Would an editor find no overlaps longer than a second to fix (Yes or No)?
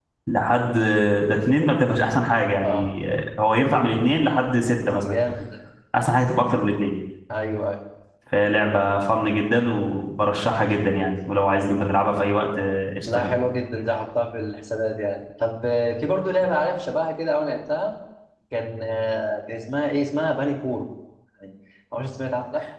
Yes